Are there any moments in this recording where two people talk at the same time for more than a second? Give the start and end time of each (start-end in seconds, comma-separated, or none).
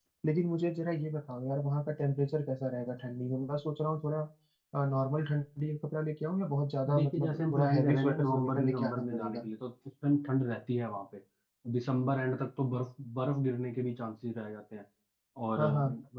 7.0-9.5